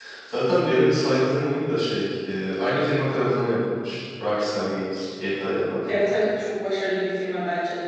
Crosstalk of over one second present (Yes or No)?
No